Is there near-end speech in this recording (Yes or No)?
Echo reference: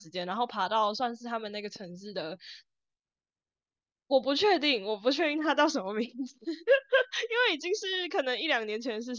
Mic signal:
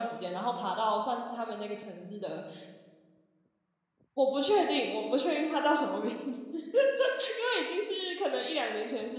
No